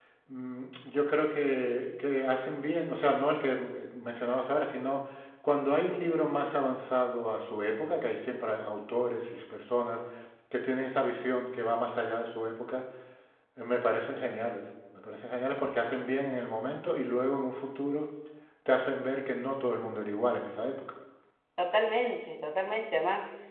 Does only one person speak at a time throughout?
Yes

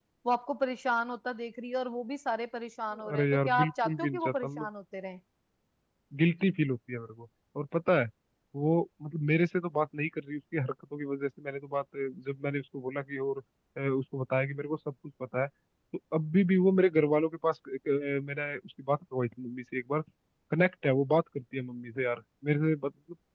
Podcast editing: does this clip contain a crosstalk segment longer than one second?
Yes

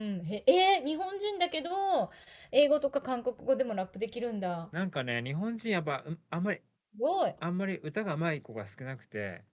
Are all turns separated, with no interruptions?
Yes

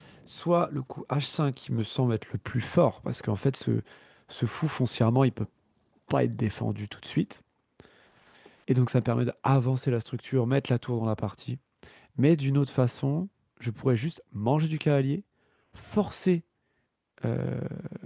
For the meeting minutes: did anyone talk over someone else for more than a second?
No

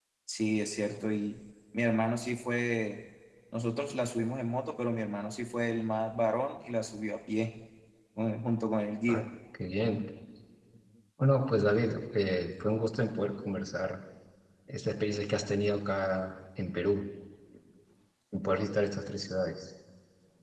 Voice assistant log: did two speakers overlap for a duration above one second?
No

